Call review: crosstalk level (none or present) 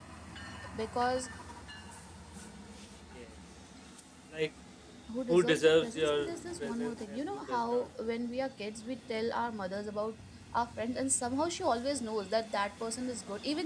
present